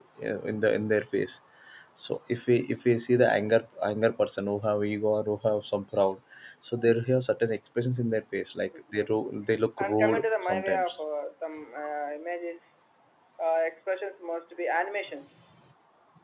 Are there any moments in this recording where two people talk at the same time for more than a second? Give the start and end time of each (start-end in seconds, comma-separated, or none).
9.8-11.0